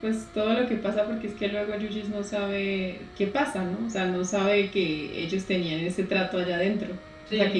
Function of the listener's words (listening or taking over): taking over